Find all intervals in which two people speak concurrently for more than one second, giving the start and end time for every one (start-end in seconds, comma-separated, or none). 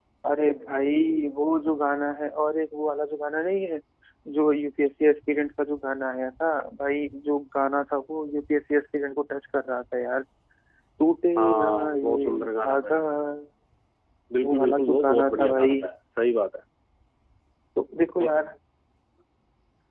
11.4-13.0, 14.4-15.8